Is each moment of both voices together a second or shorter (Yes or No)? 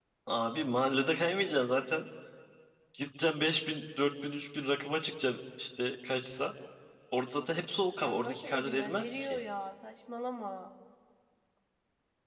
No